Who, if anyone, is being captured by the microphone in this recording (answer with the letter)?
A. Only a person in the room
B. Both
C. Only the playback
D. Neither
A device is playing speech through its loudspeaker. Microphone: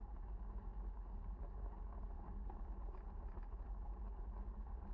D